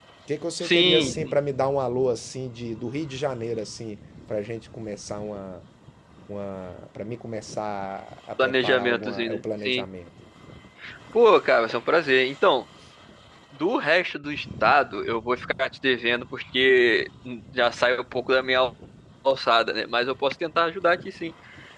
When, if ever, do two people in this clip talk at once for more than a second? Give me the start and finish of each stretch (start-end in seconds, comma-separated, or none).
8.4-9.8